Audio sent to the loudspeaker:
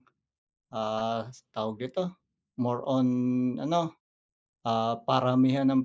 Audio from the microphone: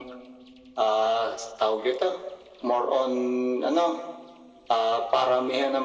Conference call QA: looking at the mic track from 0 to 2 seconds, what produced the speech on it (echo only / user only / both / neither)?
echo only